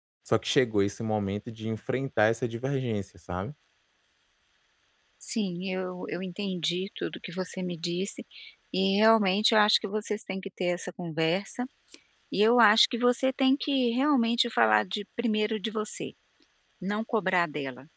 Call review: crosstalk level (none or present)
none